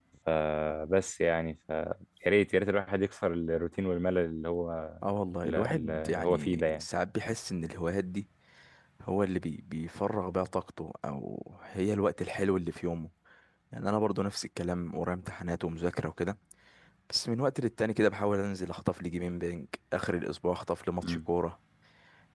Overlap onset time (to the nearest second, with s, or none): 5 s